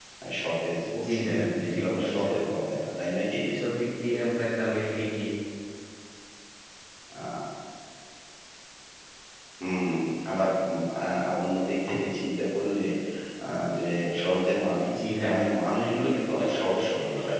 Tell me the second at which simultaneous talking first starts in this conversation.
1.1 s

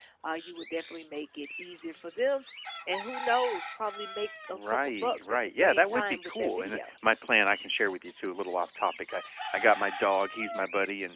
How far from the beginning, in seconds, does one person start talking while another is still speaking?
4.5 s

